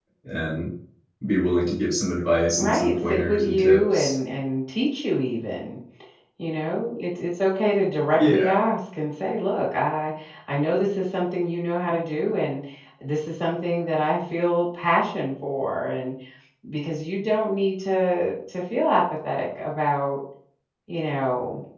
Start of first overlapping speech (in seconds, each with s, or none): 2.6 s